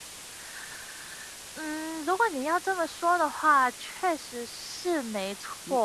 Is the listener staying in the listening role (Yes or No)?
No